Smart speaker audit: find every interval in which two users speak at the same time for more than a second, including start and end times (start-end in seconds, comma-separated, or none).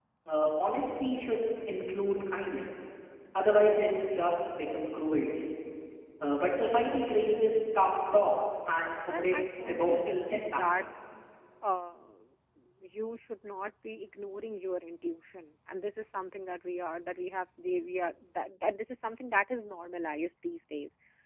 9.1-10.7